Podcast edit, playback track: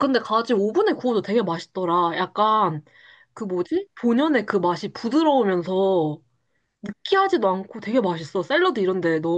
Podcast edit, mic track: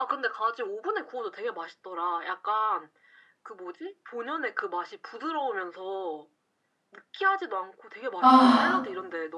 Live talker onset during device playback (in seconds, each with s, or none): 8.2 s